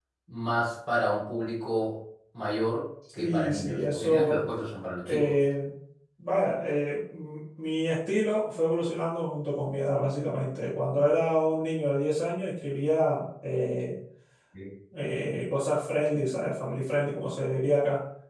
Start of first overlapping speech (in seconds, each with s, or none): 3.2 s